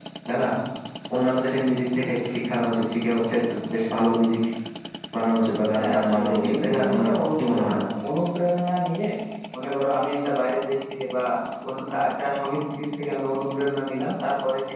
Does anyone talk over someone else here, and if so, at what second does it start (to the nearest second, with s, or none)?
6 s